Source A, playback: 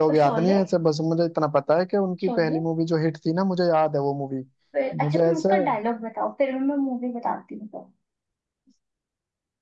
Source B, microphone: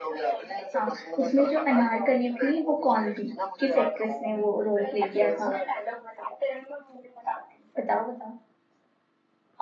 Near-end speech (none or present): present